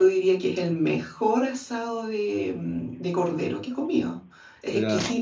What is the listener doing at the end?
listening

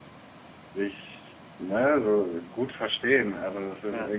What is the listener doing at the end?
listening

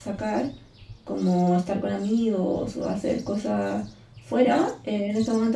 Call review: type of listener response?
listening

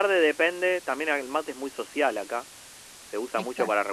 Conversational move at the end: listening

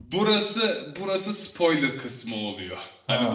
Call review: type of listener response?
listening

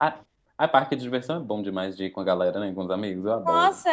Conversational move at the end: taking over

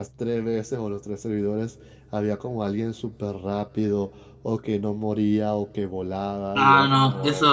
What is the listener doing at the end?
taking over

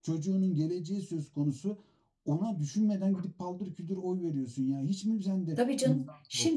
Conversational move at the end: taking over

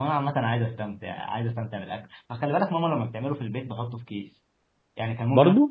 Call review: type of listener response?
listening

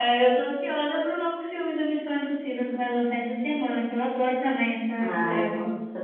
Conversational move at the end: taking over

